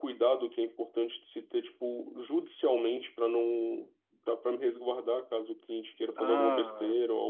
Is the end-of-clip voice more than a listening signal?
Yes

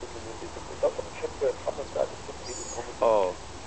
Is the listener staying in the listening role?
No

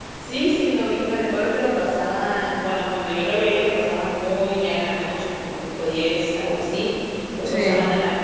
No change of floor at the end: Yes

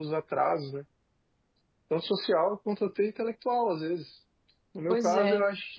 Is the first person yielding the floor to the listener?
No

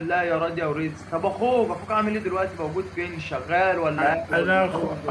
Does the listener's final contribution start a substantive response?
Yes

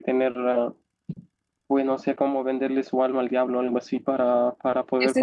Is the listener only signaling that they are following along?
No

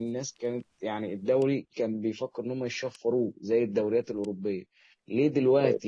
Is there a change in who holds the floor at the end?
No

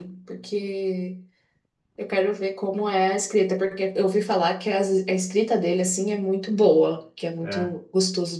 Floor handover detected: No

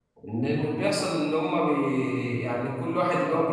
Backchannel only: Yes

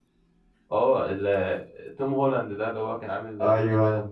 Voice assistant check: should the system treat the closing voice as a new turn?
Yes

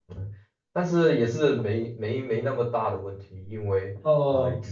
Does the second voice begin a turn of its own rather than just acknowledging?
No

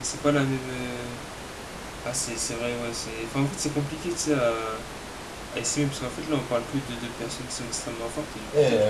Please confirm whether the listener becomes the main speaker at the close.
Yes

